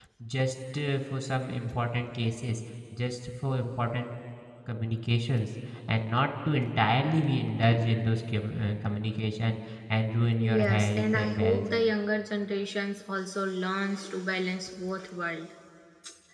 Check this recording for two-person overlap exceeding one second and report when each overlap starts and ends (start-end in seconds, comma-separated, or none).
10.4-11.6